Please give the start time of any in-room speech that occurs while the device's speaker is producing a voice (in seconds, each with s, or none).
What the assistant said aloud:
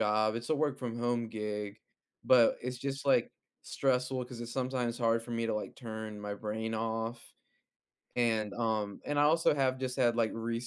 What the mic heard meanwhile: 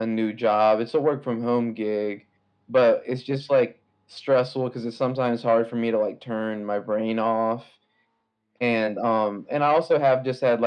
none